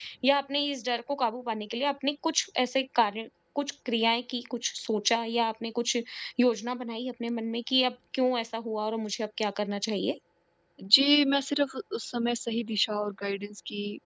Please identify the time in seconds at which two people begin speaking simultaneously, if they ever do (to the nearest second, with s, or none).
none